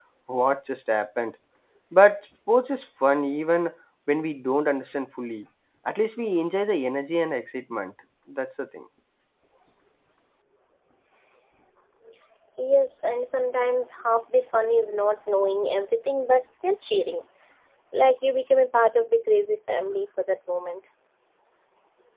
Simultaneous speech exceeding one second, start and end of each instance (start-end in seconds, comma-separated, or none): none